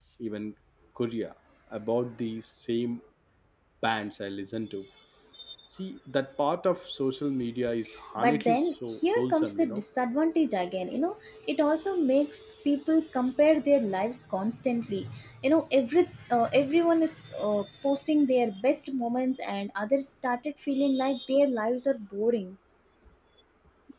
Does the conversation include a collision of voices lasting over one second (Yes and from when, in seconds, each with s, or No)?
Yes, from 8.2 s